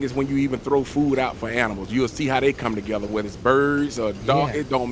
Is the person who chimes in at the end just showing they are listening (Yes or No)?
Yes